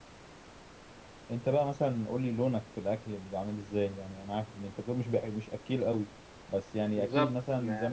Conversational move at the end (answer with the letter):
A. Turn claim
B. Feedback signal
B